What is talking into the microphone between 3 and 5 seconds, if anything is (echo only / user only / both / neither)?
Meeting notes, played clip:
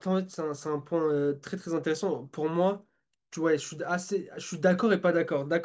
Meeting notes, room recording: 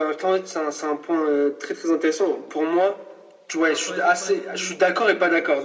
both